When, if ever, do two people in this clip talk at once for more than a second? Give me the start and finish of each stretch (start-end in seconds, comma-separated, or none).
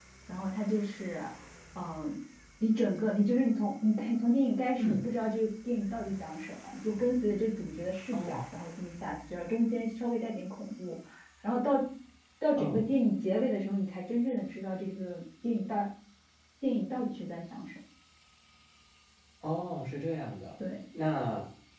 none